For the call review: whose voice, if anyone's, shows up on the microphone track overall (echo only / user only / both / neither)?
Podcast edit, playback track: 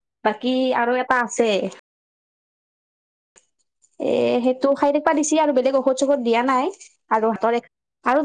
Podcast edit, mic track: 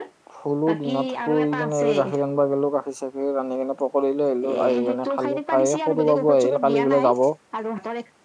both